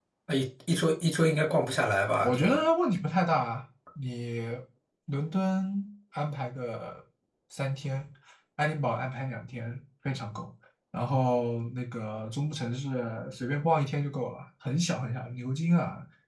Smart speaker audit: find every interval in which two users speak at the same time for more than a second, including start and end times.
none

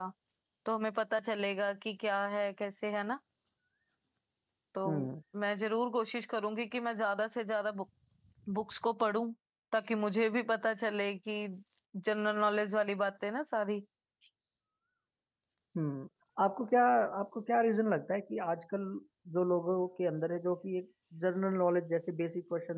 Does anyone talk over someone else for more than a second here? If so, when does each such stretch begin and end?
none

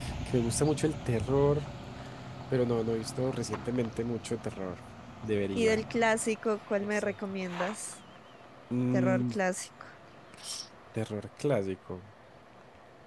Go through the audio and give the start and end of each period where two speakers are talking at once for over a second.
none

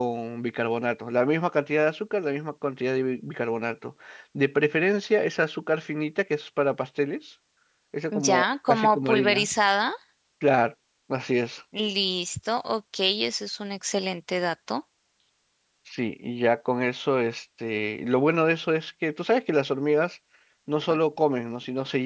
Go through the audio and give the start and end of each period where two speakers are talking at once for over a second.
8.1-9.5

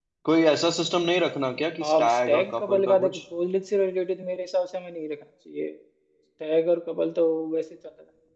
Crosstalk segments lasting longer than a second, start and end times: 1.8-3.2

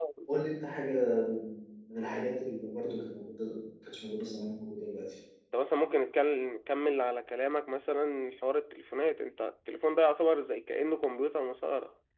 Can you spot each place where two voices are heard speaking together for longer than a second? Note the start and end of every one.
none

